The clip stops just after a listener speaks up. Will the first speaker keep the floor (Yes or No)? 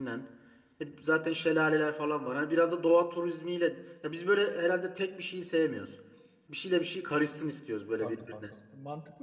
No